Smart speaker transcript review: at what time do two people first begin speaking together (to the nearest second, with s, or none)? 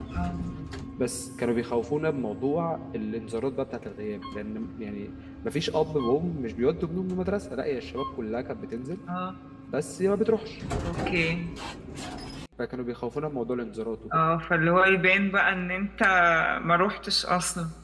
none